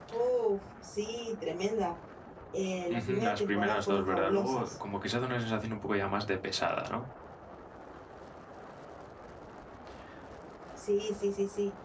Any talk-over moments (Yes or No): Yes